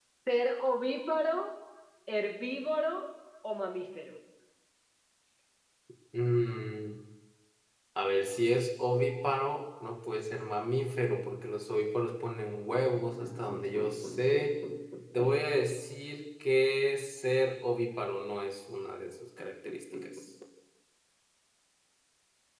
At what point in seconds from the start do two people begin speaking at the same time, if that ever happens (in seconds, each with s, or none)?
none